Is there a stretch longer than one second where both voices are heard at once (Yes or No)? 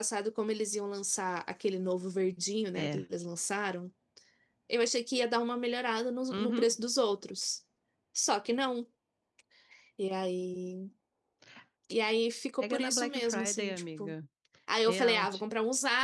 Yes